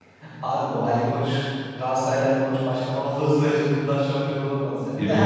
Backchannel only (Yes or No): Yes